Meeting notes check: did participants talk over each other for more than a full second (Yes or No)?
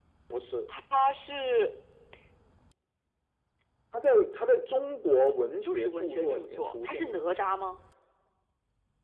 Yes